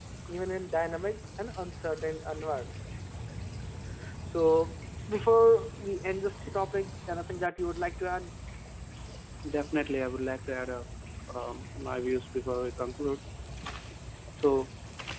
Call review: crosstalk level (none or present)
none